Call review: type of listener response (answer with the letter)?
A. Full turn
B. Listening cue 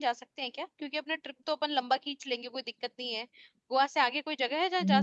A